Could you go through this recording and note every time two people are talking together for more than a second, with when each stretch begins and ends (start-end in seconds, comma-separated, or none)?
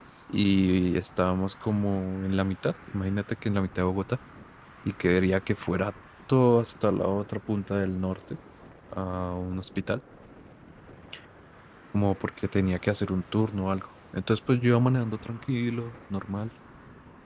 none